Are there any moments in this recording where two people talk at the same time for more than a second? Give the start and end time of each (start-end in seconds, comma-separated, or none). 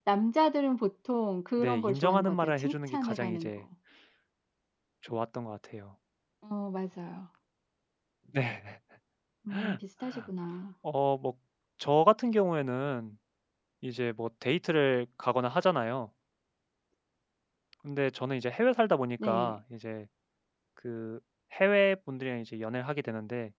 1.6-3.5